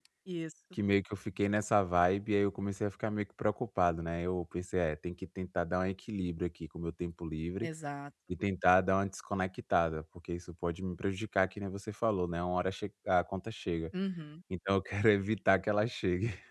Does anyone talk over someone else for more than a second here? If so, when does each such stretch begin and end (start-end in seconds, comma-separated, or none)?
none